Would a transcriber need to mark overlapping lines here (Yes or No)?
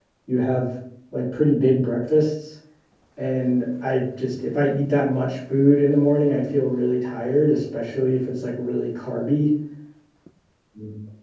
No